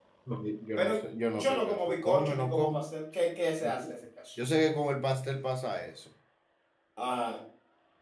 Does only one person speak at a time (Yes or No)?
No